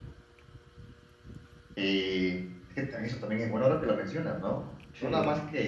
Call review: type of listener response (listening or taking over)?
listening